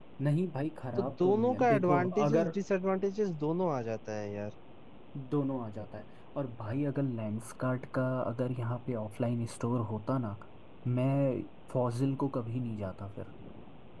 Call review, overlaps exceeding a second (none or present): present